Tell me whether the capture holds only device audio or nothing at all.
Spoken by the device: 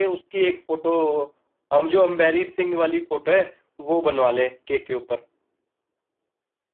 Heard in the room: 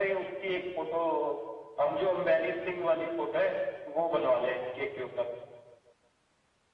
Yes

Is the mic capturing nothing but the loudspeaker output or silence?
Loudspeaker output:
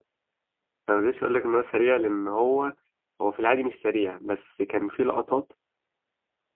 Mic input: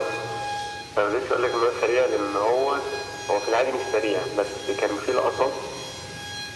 Yes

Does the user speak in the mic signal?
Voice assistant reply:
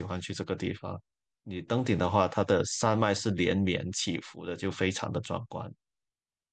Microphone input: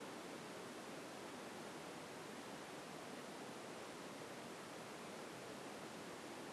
No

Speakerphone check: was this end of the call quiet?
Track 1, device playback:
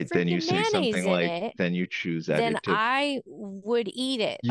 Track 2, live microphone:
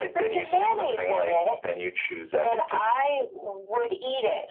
Yes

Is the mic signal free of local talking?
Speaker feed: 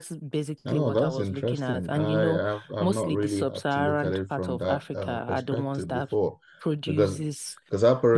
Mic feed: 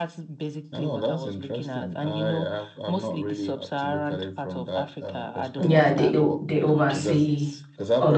No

